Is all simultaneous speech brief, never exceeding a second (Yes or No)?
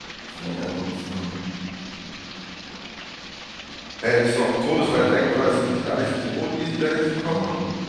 No